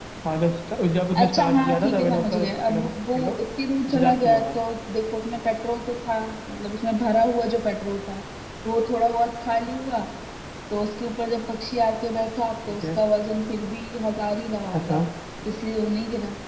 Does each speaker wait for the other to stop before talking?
No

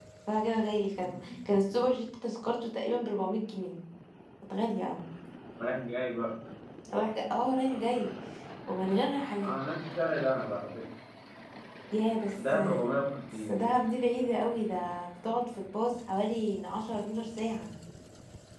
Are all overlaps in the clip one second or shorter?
Yes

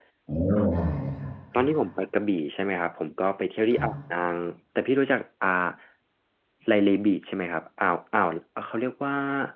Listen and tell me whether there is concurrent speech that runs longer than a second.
No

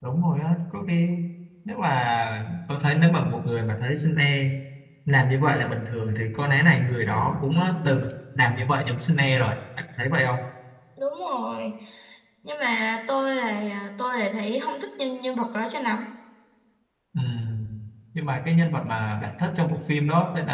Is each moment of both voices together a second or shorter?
Yes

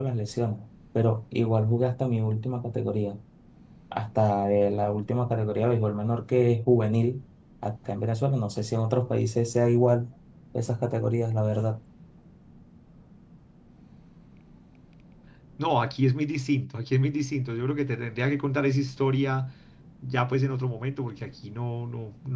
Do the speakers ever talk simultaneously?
No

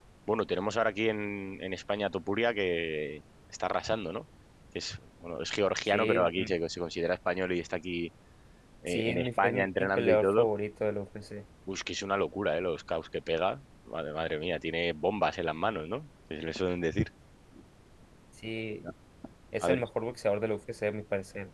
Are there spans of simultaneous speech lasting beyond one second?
Yes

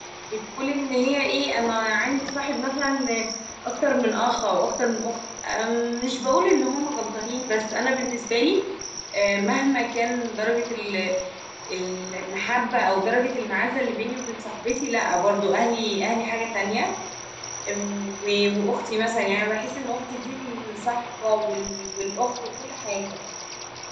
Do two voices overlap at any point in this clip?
No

